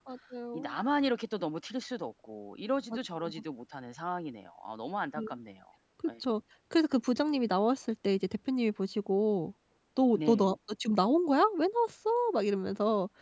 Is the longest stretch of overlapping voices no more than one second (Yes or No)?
Yes